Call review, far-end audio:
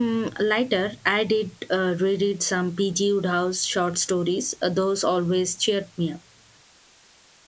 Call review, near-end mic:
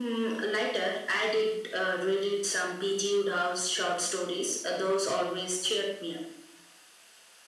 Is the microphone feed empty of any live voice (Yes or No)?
Yes